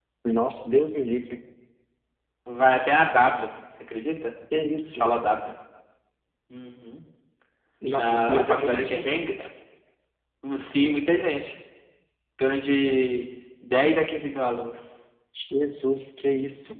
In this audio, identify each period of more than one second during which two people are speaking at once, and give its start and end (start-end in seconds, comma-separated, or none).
8.0-9.2